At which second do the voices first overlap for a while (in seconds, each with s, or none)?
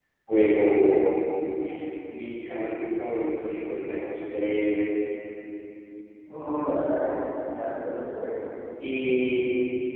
none